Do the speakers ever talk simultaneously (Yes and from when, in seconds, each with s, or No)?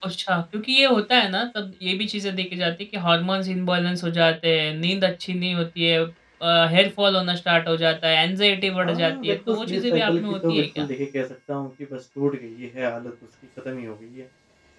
Yes, from 8.8 s